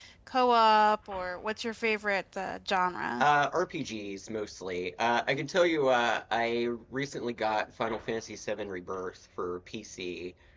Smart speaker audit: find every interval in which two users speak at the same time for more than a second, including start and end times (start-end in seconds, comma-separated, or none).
none